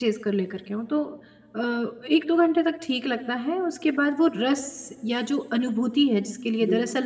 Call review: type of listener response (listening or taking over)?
listening